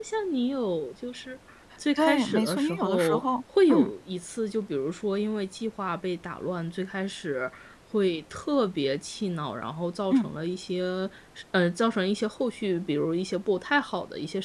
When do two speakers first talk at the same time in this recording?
2 s

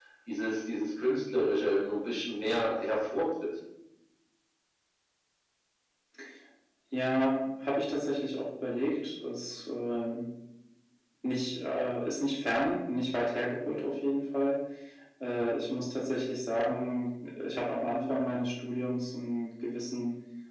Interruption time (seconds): none

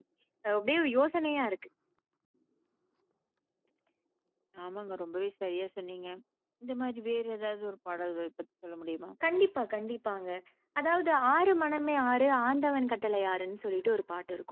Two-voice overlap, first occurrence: none

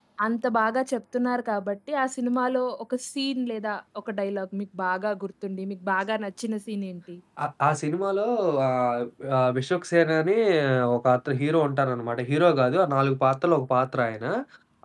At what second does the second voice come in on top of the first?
none

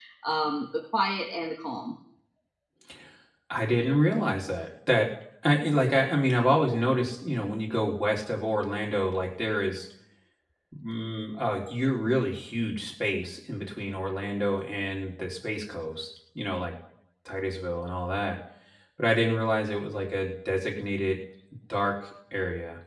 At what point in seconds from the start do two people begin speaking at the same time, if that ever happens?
none

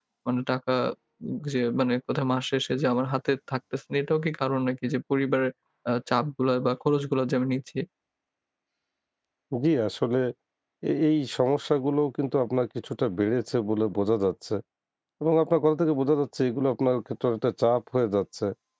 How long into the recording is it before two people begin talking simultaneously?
none

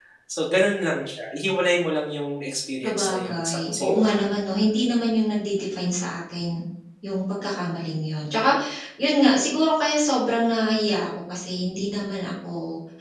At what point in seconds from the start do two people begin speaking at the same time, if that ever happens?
3 s

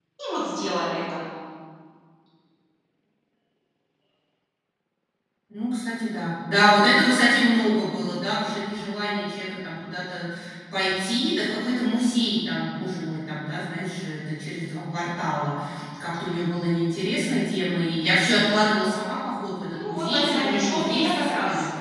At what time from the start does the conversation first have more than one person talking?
20 s

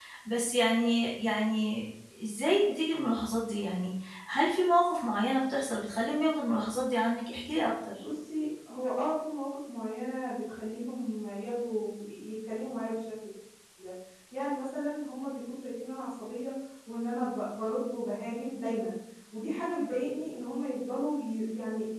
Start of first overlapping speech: none

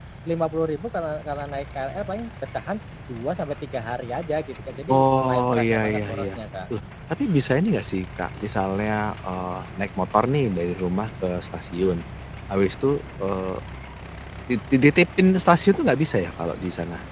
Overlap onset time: 5 s

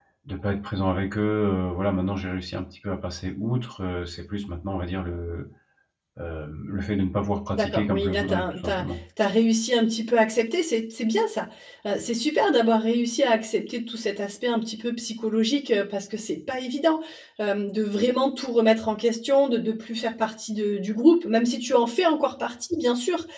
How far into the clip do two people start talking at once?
8 s

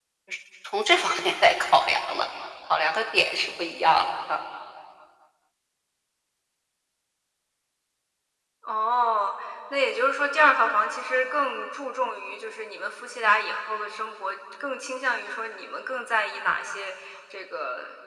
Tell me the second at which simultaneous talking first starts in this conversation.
none

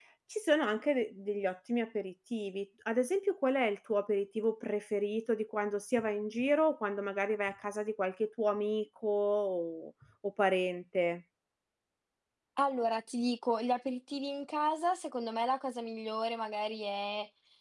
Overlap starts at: none

